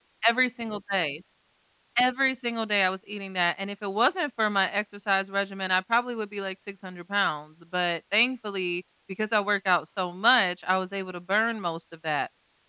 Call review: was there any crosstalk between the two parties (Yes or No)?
No